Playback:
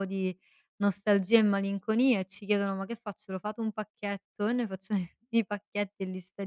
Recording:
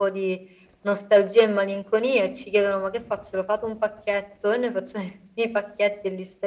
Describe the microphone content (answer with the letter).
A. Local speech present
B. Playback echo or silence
B